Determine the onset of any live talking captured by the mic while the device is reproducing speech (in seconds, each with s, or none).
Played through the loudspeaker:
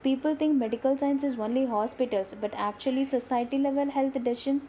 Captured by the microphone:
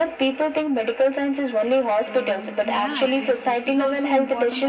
2.0 s